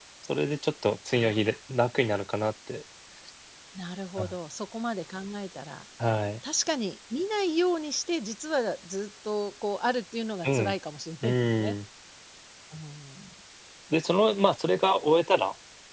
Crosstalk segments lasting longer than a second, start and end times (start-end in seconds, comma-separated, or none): none